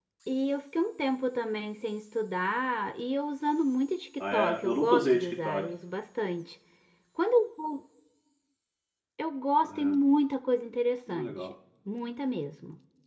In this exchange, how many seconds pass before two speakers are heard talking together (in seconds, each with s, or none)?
4.2 s